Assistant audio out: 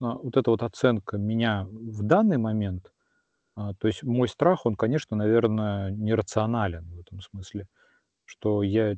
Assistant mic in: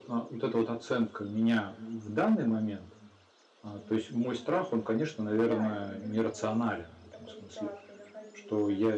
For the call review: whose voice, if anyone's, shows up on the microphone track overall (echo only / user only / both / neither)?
both